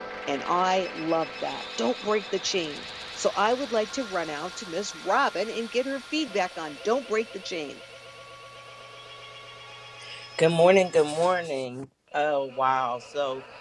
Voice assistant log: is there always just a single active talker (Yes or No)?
Yes